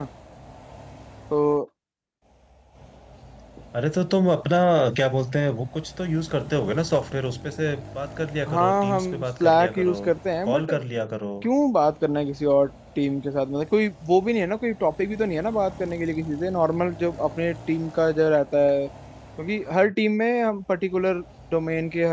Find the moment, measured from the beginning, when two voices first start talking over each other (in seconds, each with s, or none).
8.5 s